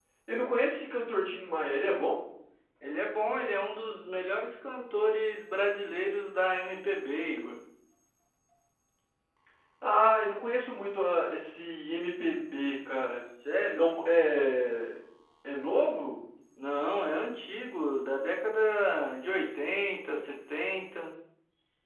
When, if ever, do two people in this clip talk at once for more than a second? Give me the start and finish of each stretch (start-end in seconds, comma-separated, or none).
none